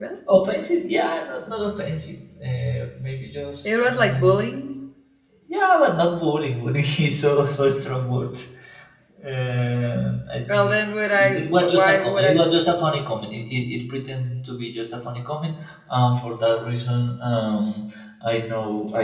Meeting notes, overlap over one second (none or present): present